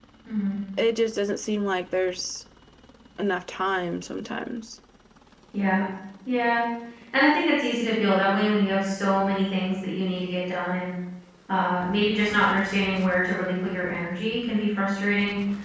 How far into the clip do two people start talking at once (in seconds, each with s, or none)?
none